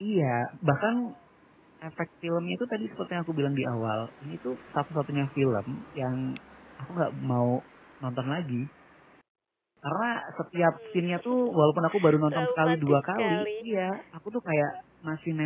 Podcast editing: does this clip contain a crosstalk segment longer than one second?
Yes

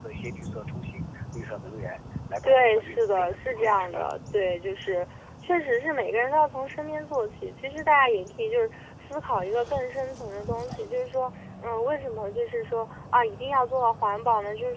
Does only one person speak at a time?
No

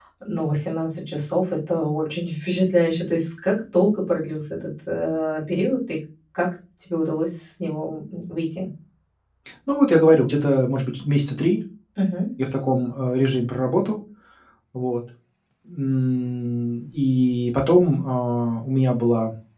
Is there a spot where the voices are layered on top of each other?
No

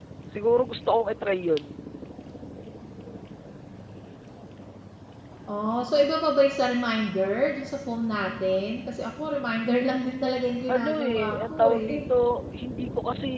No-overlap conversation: No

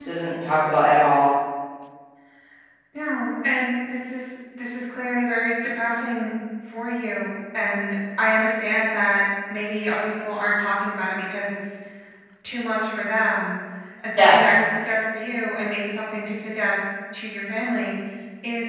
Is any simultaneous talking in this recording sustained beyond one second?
No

